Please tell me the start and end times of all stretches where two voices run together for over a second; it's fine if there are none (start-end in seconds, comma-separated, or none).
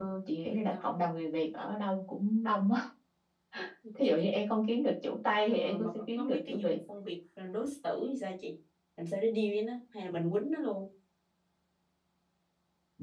5.5-6.8